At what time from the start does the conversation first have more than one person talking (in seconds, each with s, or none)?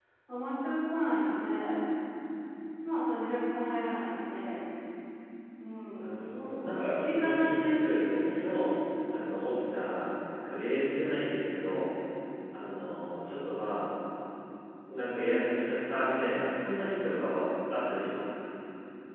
5.9 s